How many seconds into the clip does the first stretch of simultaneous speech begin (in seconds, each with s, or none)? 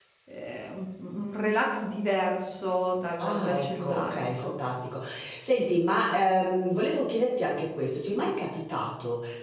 3.2 s